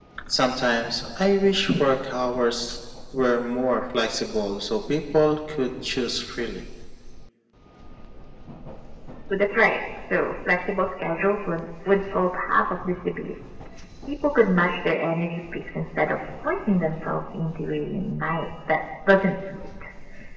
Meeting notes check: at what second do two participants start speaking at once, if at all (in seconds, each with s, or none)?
none